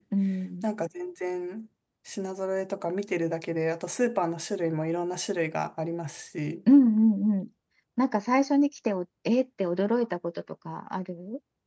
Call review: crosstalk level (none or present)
none